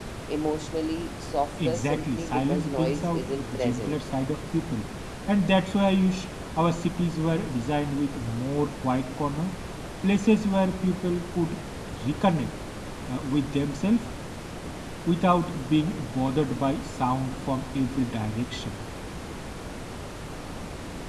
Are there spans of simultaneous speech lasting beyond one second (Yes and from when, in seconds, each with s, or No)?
Yes, from 1.6 s